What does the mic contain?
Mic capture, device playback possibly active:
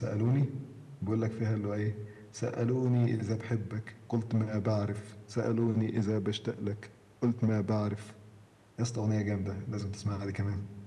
echo only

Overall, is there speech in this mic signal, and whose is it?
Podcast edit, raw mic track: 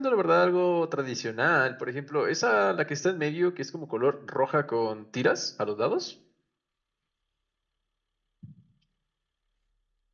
echo only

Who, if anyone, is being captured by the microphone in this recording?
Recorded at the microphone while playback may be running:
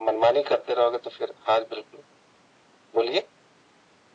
echo only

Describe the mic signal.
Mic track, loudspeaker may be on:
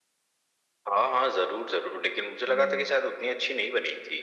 both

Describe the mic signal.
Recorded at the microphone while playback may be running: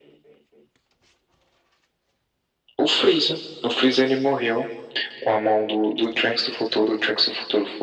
echo only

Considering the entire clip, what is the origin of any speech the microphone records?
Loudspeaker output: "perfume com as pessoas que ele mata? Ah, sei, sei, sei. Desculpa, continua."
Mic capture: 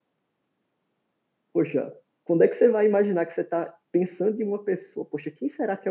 user only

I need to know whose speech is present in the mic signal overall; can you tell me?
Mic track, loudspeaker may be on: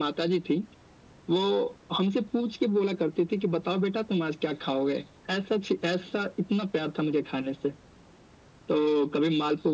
echo only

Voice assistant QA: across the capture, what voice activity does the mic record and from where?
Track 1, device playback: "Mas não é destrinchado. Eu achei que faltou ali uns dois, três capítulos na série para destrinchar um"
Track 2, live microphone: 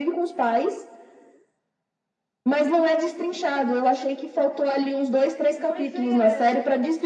both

